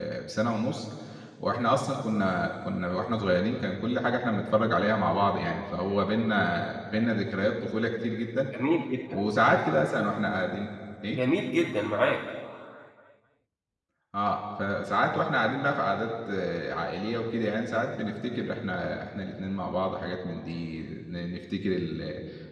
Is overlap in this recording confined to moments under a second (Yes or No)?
Yes